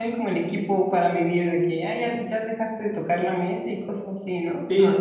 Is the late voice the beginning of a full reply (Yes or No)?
Yes